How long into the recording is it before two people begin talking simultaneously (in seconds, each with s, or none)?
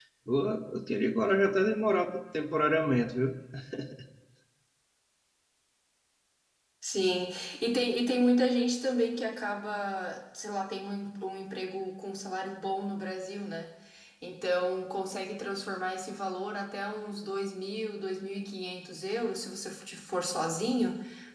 none